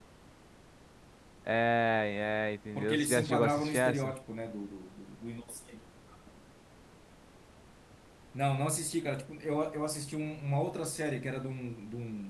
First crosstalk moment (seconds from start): 2.8 s

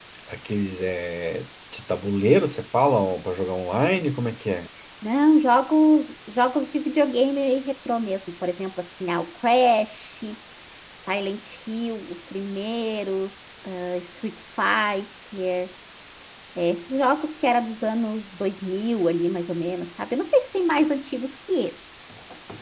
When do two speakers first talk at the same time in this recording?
none

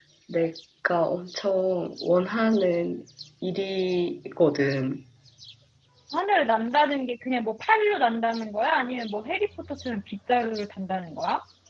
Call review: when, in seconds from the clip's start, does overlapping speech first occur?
none

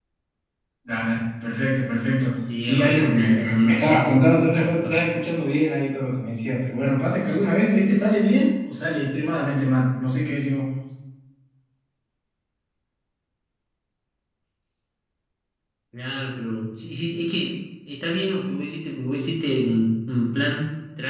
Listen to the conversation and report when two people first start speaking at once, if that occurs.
2.6 s

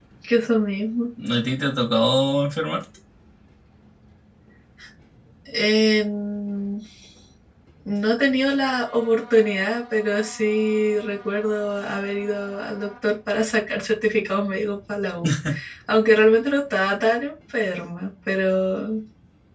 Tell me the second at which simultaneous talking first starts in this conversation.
none

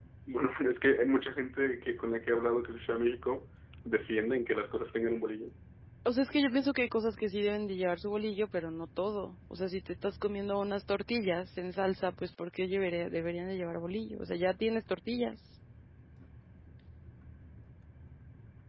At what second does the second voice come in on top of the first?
none

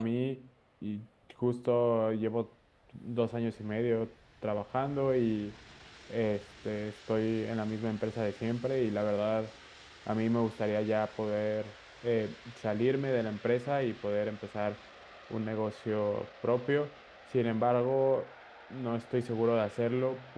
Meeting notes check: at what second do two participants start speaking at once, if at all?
none

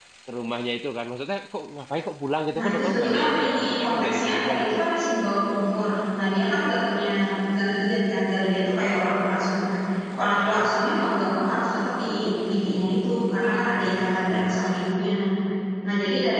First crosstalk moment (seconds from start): 2.6 s

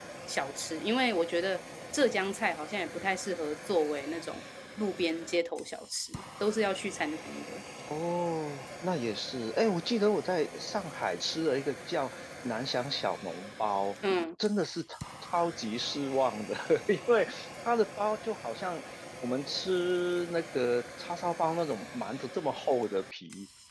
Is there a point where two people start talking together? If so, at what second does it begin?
none

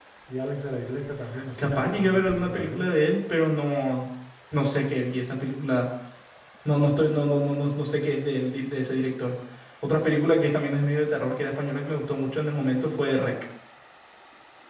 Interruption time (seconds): 1.6 s

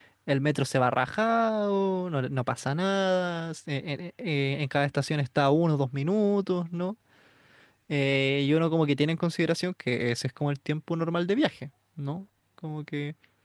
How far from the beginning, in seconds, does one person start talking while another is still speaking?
none

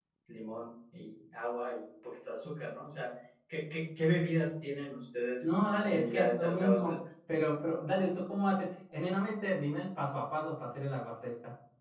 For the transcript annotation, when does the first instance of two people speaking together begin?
5.4 s

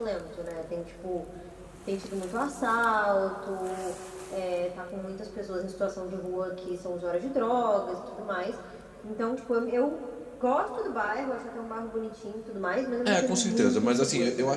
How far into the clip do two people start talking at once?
13.0 s

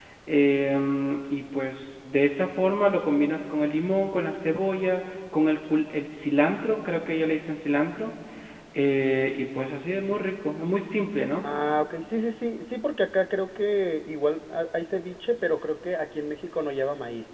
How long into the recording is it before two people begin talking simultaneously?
none

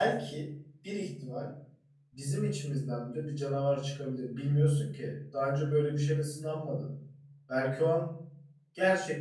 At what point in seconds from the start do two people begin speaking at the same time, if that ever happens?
none

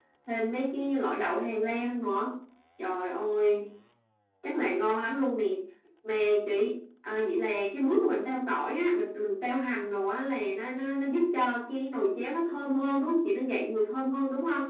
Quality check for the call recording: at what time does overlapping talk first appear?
none

